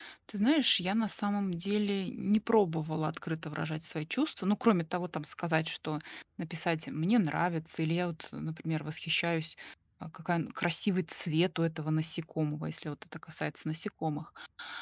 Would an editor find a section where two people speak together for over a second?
No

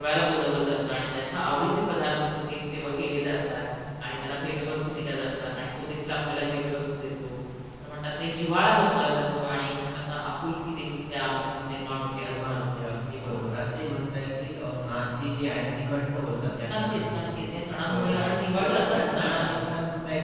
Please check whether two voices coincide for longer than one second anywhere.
Yes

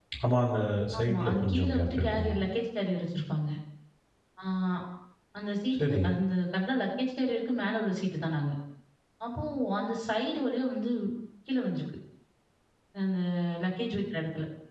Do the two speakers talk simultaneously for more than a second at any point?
Yes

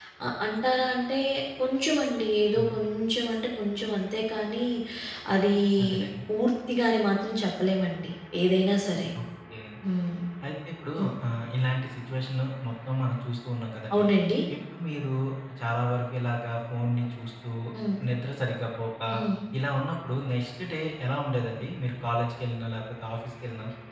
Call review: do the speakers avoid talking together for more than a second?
Yes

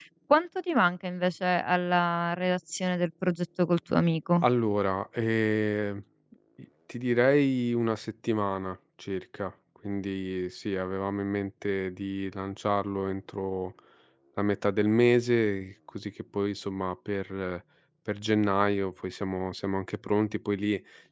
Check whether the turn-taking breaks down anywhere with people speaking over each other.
No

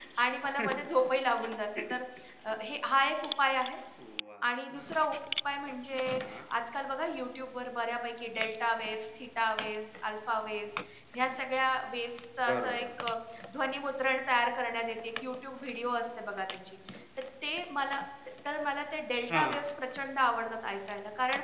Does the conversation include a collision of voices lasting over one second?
No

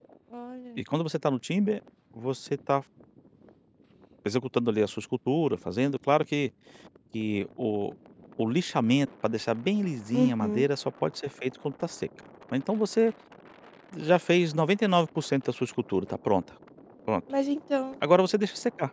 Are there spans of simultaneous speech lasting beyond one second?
No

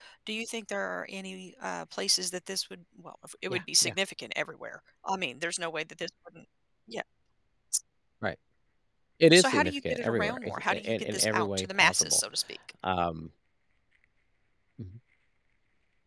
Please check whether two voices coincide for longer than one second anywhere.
Yes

